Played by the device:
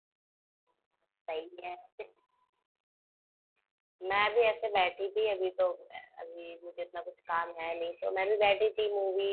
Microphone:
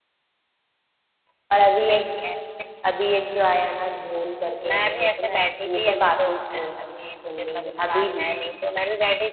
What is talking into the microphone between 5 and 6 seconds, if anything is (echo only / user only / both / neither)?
both